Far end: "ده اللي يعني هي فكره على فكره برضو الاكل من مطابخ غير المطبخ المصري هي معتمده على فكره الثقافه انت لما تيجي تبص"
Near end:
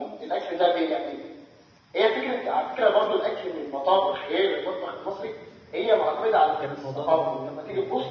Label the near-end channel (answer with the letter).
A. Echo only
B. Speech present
B